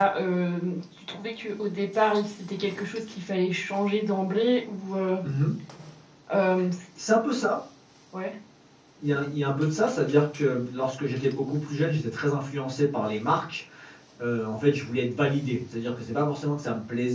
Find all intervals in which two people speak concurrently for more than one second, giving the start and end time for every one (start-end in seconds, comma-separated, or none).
none